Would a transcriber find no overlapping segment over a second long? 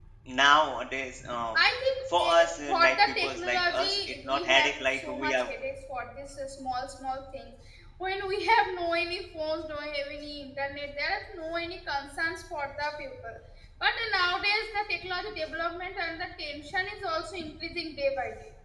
No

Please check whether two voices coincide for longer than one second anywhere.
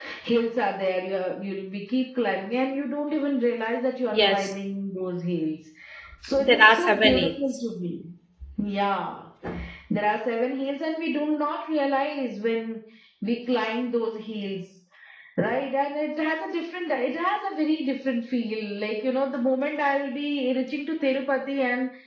Yes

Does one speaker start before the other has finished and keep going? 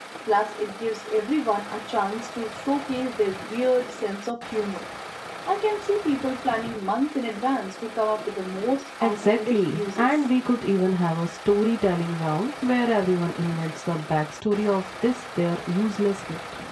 Yes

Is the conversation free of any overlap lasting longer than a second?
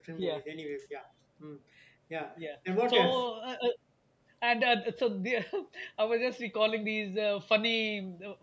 Yes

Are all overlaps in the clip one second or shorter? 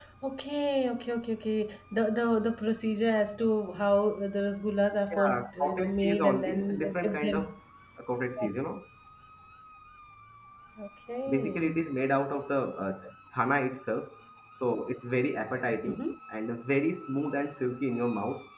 No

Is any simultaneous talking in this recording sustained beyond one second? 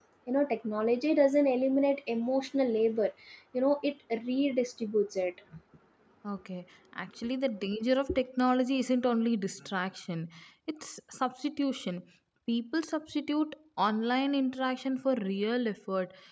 No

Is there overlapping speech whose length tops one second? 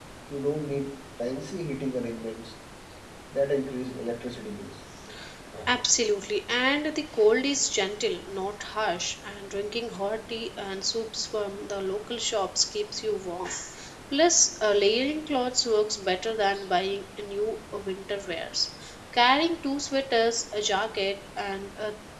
No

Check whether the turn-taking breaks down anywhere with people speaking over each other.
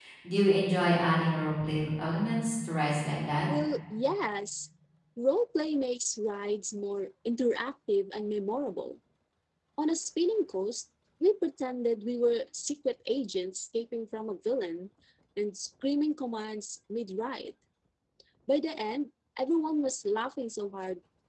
No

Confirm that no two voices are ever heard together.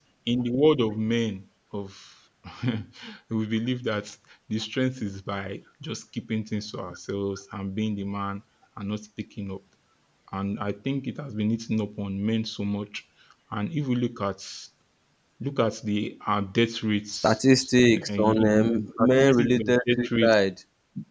No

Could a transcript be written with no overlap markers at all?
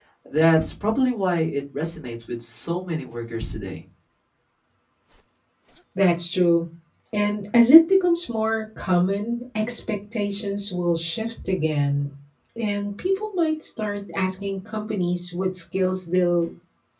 Yes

